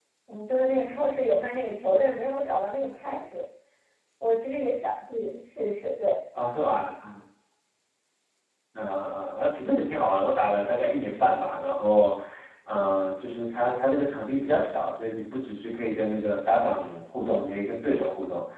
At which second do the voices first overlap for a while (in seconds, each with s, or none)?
none